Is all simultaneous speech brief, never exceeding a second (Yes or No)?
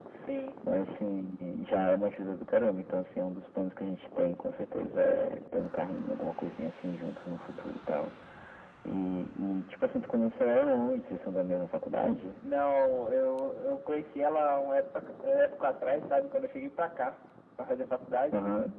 Yes